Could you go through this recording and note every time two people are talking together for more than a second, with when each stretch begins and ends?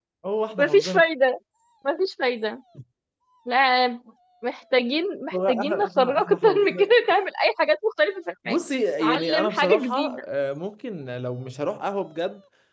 5.3-6.9, 9.0-10.2

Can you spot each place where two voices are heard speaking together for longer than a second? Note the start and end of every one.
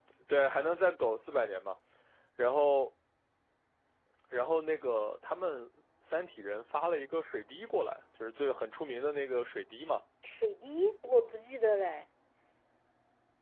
none

